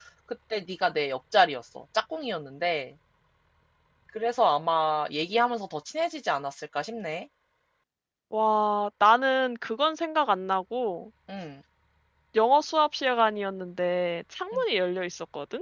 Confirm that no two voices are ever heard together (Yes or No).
Yes